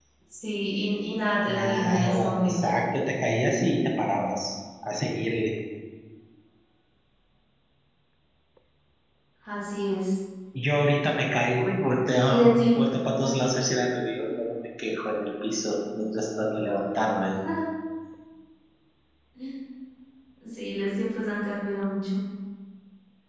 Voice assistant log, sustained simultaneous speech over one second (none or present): present